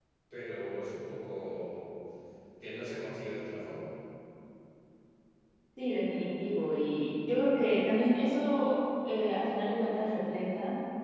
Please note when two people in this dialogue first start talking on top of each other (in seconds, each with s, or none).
none